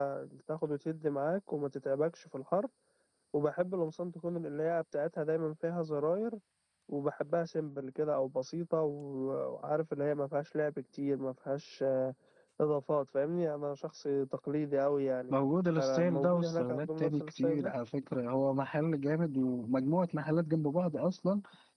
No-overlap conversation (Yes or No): No